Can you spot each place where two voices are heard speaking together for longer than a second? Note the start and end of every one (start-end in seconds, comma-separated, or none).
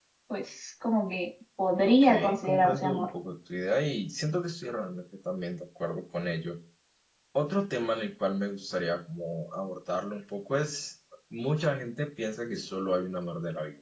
1.8-3.1